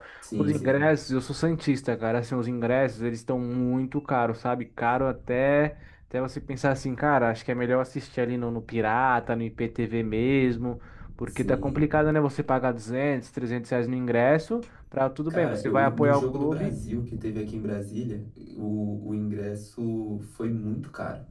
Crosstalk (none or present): present